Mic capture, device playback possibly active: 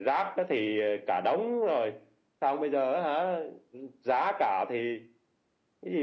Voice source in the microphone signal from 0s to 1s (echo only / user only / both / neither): echo only